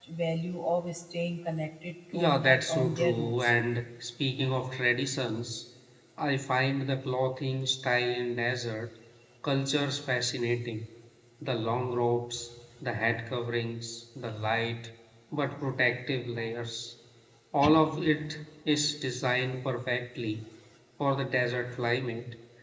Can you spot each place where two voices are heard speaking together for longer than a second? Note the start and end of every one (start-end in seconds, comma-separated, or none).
2.1-3.5